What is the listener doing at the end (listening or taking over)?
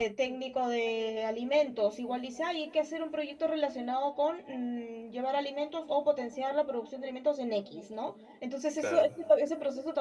listening